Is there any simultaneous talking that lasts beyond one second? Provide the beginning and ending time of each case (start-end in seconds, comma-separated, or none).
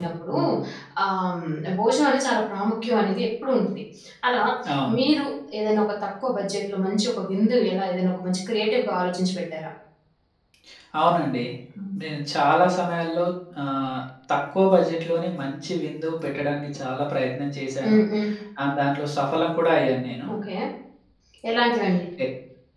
none